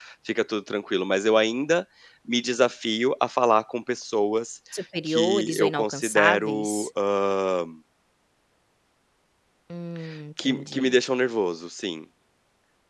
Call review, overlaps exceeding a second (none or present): present